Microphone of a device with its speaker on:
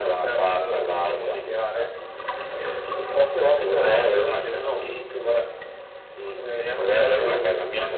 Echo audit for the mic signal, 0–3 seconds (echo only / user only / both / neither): echo only